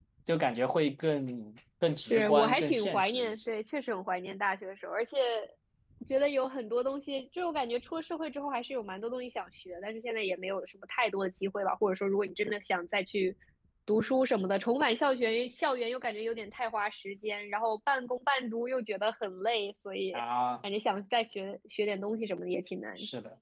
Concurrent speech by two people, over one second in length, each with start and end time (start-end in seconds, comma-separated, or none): 2.1-3.4